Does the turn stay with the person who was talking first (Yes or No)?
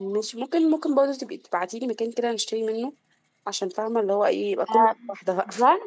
No